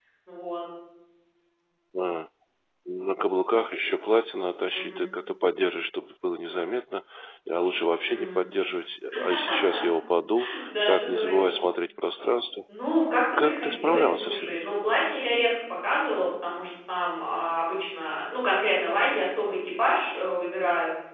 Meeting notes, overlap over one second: present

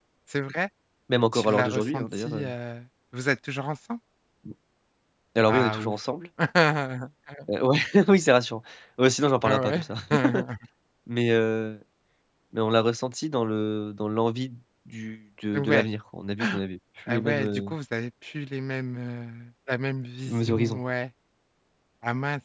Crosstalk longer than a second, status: present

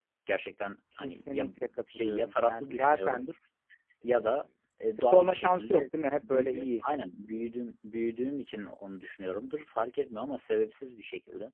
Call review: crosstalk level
present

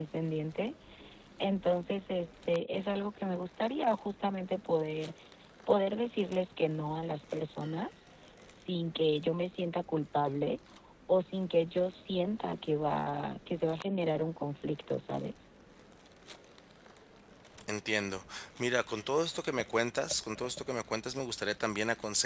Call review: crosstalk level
none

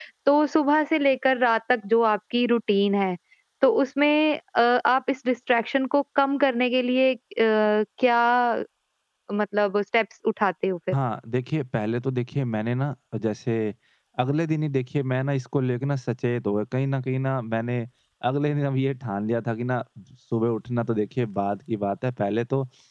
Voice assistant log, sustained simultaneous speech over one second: none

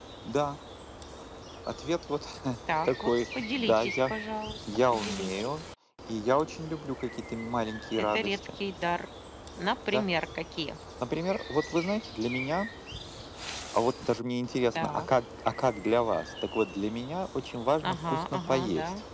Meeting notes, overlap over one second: present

